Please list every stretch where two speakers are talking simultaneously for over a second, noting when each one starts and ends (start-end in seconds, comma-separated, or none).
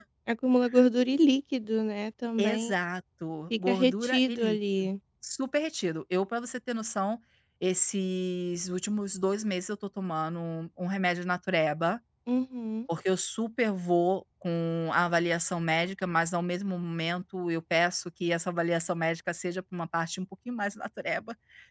3.6-4.9